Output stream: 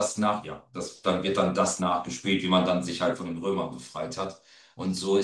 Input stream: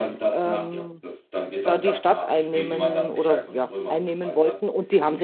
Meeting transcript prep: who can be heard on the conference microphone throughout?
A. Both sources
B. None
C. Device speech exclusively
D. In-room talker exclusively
A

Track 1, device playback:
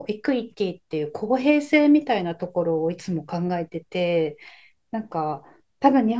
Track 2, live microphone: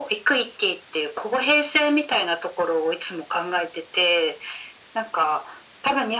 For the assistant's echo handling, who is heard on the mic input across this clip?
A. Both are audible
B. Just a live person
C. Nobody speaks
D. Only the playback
D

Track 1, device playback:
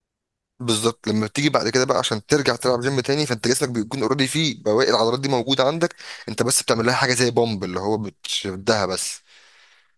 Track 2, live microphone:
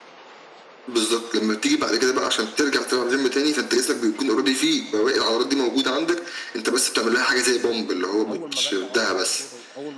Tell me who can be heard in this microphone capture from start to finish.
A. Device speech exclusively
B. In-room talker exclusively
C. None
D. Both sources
D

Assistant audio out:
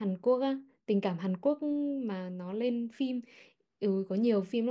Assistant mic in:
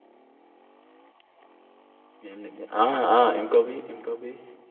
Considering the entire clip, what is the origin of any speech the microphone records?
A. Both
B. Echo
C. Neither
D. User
D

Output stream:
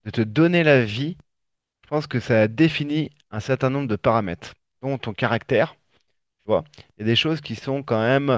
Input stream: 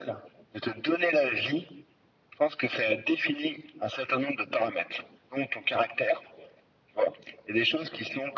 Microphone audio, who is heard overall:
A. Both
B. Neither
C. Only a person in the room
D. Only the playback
D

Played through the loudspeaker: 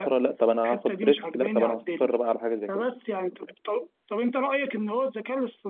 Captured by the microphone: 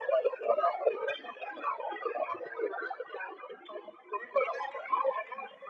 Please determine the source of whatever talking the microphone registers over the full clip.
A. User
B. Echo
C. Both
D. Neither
B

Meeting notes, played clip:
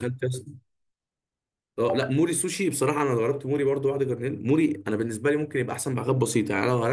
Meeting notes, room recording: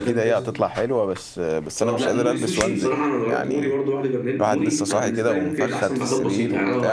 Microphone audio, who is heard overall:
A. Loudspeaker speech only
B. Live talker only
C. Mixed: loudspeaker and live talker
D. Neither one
C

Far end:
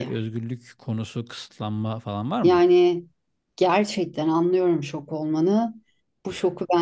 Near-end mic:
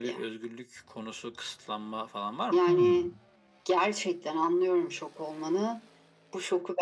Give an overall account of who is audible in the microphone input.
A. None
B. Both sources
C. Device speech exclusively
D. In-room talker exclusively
B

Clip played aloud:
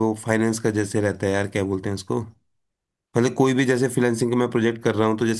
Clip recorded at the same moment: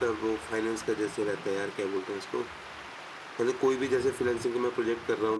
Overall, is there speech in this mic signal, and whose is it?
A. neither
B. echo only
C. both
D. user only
B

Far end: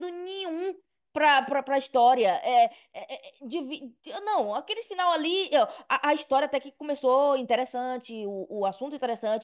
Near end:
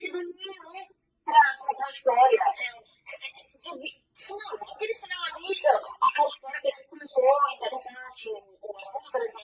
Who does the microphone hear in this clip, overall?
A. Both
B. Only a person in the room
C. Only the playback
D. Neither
C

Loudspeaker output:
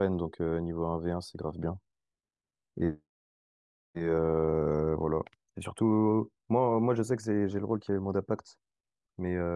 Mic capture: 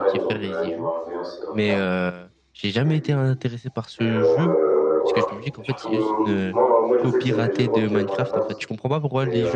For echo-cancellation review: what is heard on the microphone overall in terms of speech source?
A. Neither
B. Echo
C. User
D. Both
D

